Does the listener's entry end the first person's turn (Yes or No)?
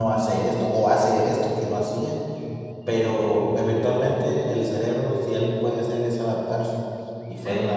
No